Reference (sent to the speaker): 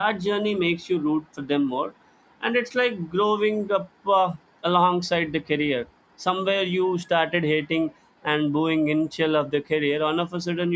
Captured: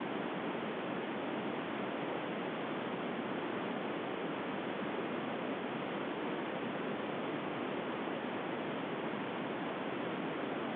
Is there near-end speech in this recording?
No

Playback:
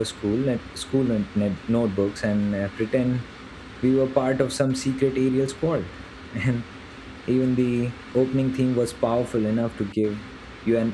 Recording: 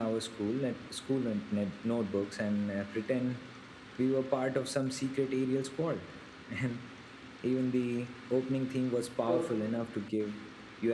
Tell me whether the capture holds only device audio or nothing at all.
No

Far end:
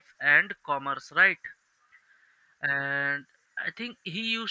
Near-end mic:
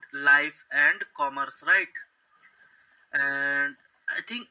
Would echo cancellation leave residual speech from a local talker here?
No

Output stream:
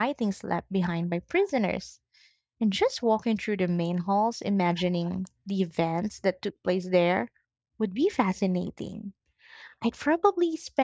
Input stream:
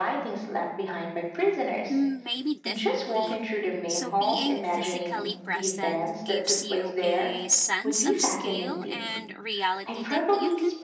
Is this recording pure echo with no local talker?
No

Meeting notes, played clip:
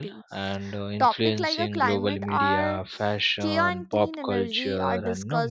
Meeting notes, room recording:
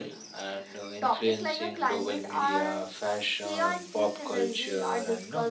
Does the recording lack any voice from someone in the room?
Yes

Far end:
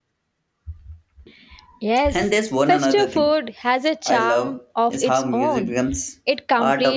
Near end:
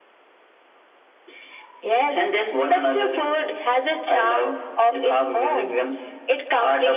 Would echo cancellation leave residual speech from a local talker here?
No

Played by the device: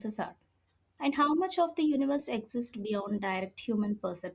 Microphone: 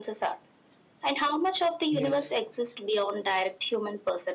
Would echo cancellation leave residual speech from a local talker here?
Yes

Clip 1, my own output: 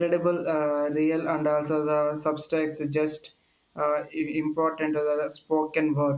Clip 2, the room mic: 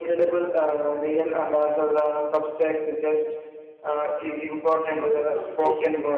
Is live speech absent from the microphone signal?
No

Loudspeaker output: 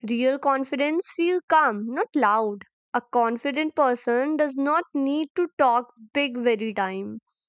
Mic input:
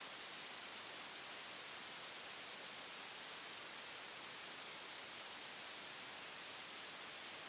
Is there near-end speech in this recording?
No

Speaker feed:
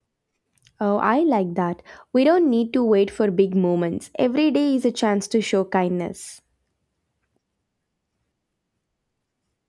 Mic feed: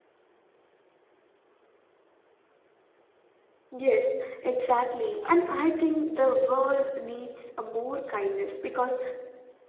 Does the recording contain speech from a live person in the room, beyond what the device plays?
Yes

